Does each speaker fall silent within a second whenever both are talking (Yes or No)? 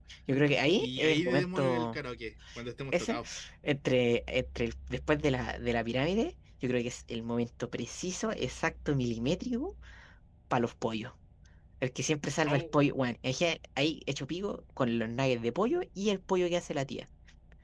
No